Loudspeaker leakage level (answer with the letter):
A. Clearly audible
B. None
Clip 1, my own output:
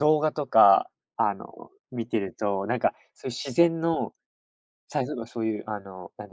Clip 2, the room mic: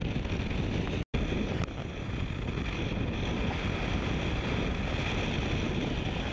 B